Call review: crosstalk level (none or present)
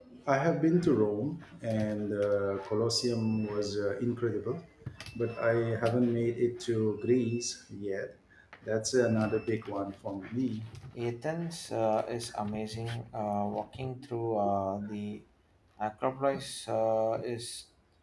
none